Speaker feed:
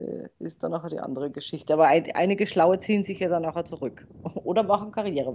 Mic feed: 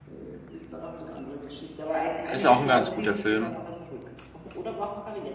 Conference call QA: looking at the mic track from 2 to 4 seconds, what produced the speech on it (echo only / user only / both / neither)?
both